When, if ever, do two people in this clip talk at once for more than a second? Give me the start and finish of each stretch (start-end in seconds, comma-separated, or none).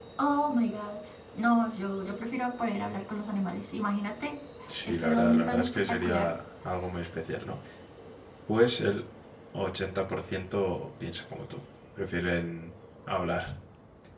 4.8-6.3